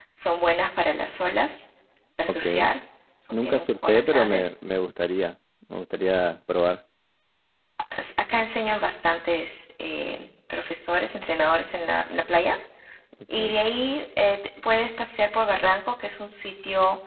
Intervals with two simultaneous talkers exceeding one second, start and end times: 3.3-4.5

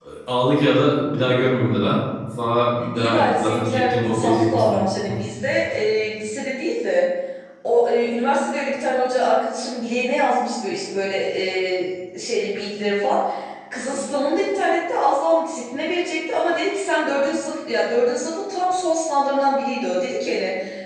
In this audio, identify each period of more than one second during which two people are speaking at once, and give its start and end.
3.0-4.8

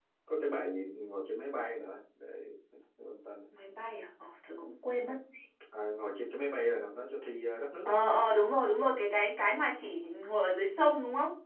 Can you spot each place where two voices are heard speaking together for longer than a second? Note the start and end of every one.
none

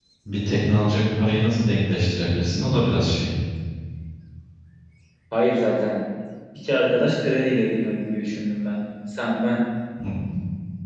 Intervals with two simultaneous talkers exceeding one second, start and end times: none

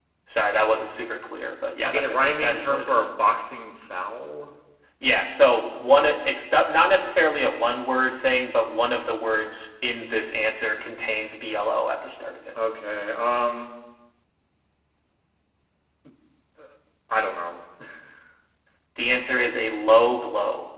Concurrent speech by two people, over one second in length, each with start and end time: 1.8-3.1

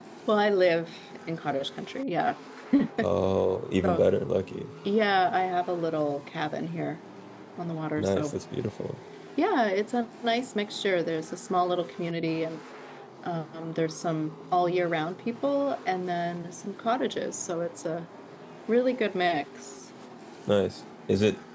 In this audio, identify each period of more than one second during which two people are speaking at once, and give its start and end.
none

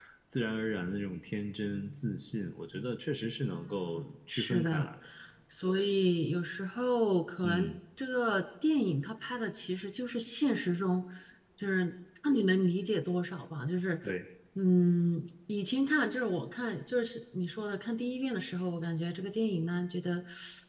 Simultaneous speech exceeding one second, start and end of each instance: 3.5-4.9

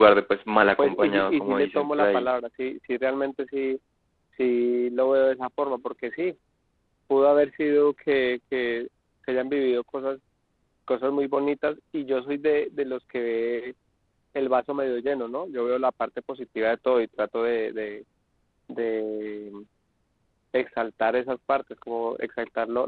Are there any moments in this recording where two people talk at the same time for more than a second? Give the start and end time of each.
0.8-2.3

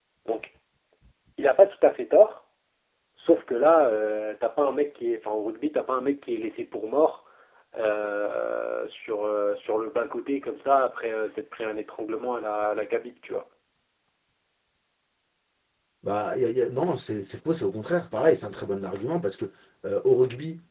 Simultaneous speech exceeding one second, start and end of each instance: none

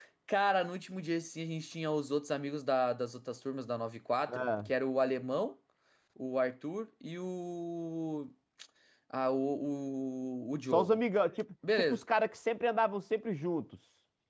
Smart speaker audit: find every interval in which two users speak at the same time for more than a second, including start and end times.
none

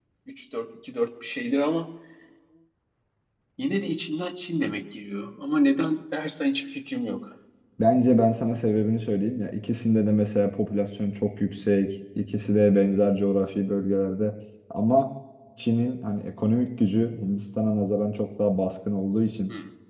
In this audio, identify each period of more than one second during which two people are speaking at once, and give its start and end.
none

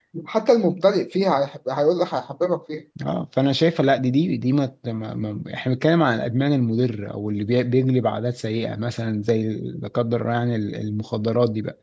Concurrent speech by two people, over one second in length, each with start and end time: none

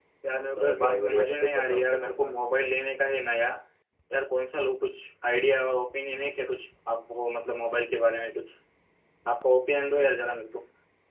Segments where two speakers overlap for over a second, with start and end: 0.5-2.4

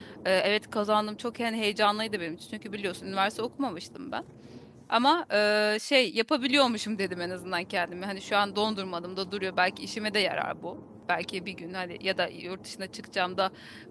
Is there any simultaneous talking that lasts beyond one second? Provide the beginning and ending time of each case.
none

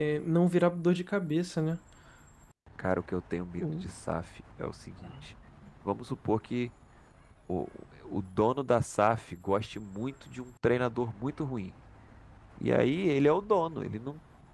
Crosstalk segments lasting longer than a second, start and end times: none

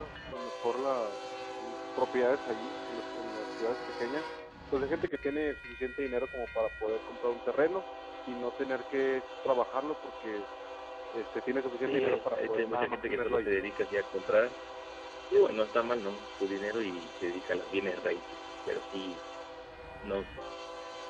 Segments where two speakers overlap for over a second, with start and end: 11.9-13.5

